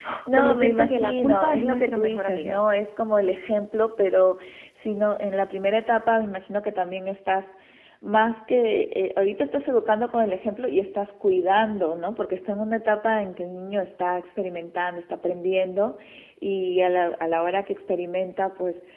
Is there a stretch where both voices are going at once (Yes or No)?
Yes